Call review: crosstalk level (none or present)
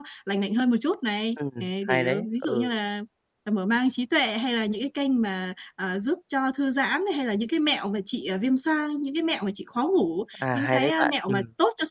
present